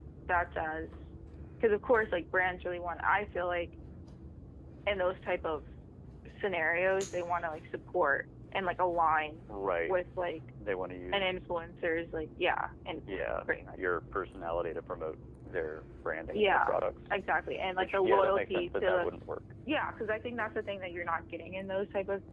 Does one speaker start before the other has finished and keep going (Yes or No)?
Yes